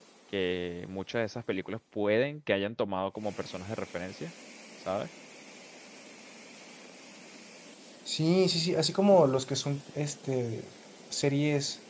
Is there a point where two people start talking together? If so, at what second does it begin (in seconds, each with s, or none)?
none